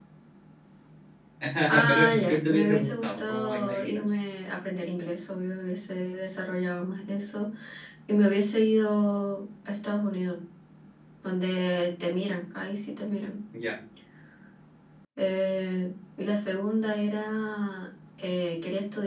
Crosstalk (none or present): present